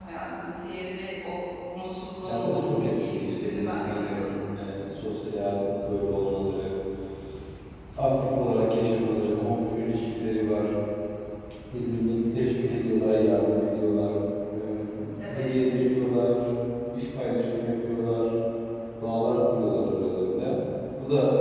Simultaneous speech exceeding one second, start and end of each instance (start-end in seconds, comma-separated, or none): 2.2-4.4